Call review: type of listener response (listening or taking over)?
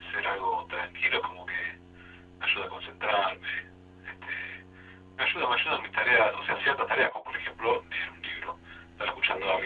taking over